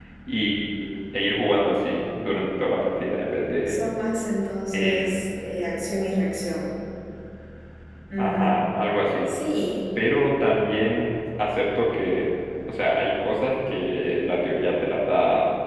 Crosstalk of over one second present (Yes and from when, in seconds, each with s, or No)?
No